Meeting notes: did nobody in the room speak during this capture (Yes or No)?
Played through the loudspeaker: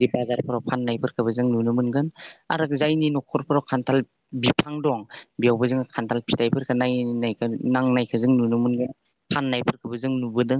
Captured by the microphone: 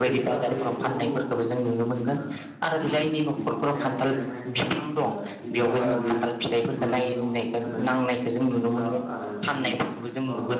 No